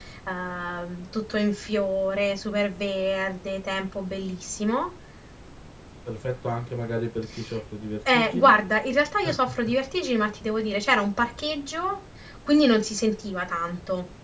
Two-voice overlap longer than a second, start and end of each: none

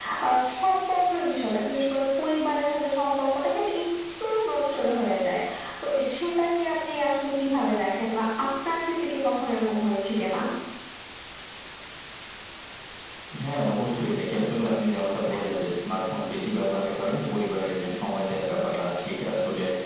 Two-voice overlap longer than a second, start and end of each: none

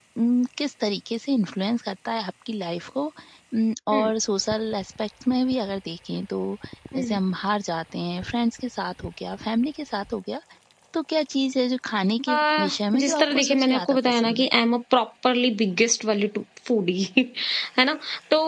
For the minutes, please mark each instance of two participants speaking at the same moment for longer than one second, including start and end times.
13.0-14.5

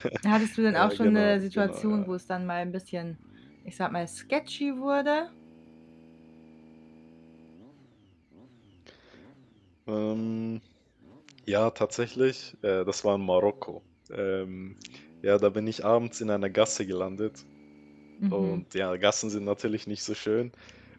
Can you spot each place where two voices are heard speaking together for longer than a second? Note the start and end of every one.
0.7-2.1

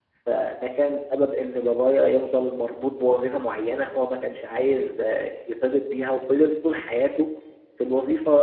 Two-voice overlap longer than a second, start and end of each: none

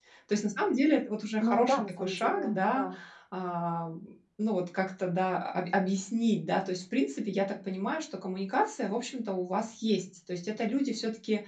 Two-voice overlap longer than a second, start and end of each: 1.4-2.8

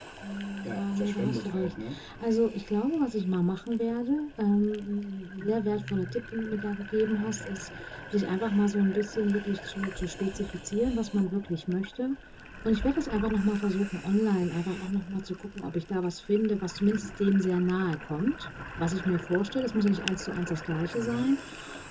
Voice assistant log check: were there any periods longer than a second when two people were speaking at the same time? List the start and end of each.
0.6-2.0

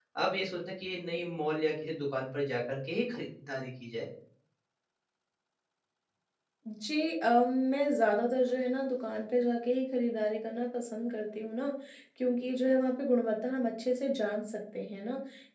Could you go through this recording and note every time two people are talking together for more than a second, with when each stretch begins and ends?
none

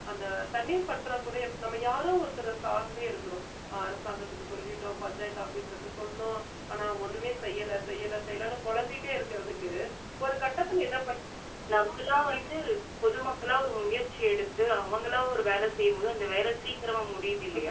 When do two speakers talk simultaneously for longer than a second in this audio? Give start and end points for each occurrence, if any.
none

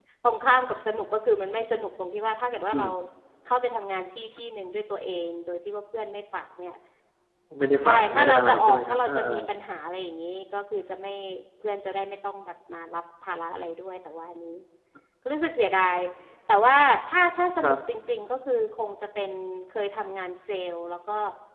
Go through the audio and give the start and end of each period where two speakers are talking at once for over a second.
7.8-9.4

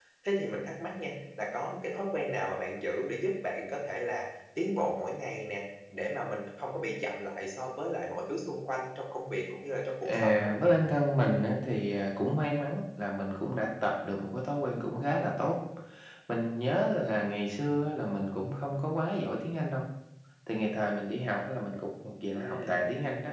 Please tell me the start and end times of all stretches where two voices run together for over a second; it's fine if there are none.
none

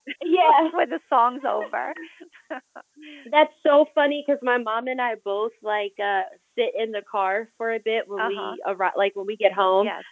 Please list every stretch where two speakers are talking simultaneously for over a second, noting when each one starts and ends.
none

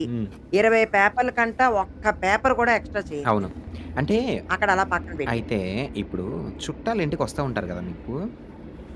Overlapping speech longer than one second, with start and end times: none

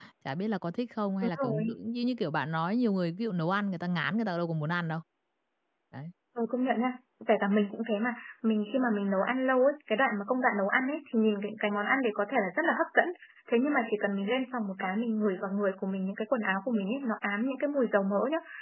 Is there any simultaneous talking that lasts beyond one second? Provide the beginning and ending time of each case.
none

